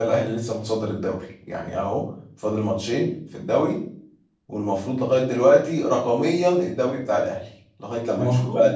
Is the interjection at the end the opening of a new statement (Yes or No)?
Yes